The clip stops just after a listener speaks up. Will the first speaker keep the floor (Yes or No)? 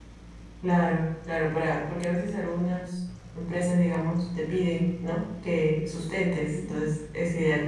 Yes